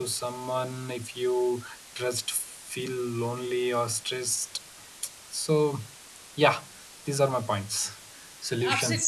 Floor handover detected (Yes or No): Yes